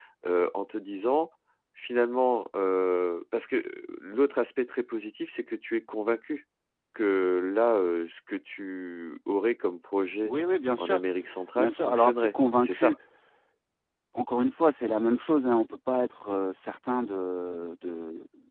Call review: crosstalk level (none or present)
present